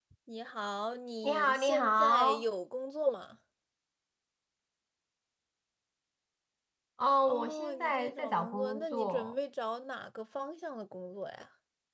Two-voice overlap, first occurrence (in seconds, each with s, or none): 1.2 s